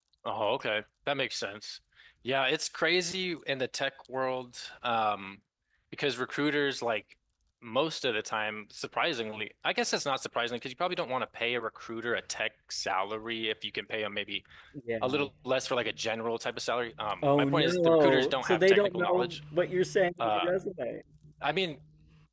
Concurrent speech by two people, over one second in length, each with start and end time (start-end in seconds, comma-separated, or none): 17.4-19.4